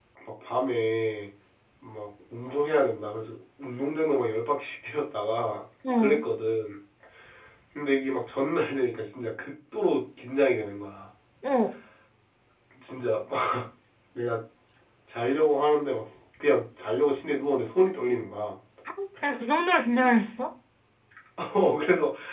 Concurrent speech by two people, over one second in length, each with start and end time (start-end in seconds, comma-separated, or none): none